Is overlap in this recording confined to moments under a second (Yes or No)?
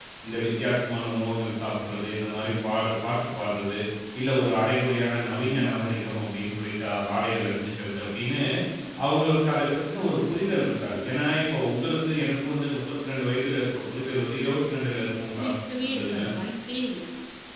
Yes